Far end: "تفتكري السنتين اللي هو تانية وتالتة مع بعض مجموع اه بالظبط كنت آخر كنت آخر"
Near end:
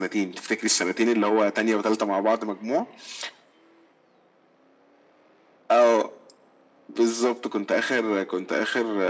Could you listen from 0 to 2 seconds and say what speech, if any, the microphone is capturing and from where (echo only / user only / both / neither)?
echo only